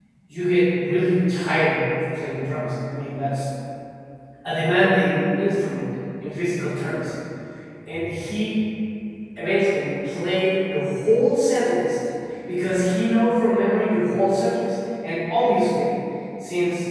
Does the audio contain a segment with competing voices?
No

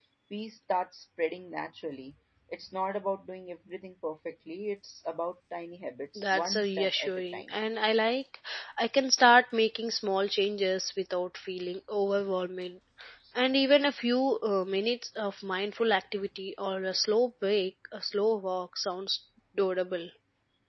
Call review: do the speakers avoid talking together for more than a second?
No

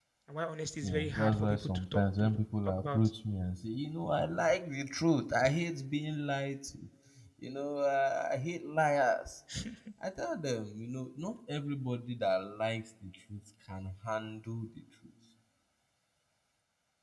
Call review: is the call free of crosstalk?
No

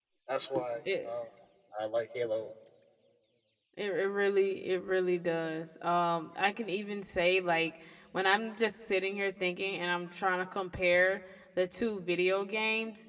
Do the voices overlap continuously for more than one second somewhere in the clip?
No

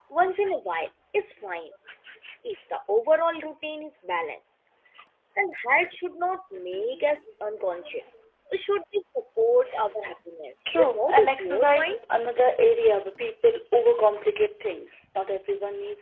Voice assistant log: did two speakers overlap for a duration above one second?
Yes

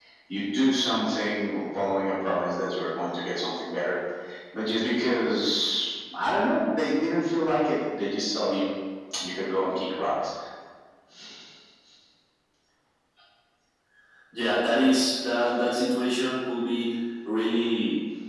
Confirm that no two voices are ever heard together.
Yes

